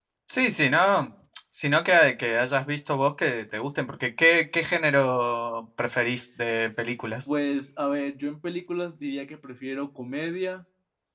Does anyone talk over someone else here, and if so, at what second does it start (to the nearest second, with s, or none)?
none